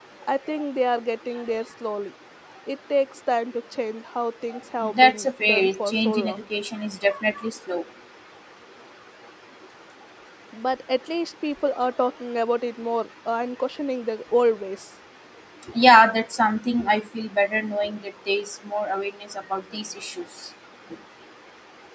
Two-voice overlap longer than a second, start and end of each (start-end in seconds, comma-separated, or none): 5.0-6.4